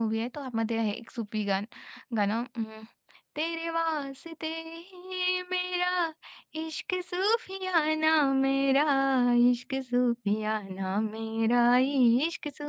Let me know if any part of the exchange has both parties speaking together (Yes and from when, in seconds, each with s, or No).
No